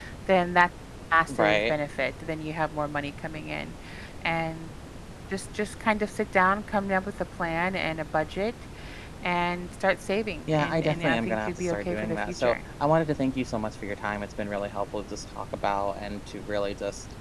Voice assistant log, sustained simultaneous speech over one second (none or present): present